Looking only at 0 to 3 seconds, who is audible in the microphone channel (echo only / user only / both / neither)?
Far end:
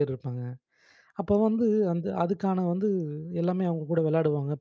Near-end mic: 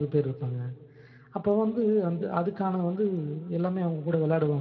echo only